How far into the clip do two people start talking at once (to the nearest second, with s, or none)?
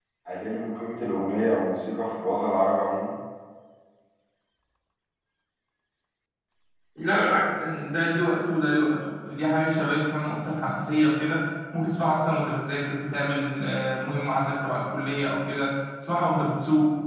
none